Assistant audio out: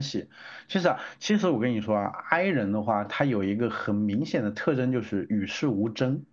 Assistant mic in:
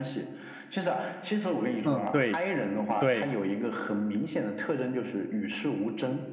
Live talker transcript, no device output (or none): 嗯，对对，